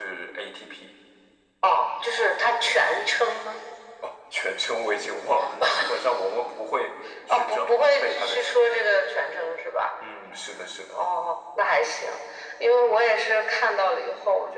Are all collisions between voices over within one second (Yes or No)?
No